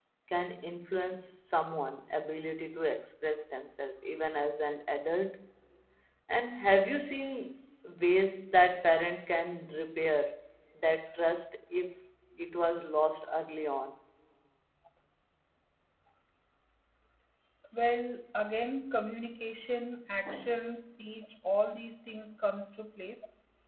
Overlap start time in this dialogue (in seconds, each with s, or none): none